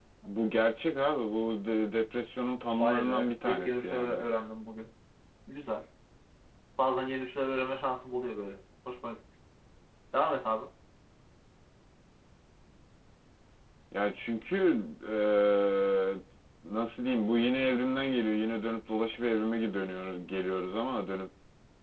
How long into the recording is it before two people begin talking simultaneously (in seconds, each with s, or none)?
2.8 s